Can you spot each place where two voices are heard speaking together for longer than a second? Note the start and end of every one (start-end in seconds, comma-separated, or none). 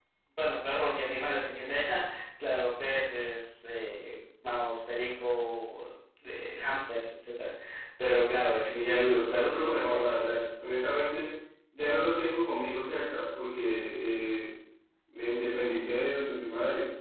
8.7-10.4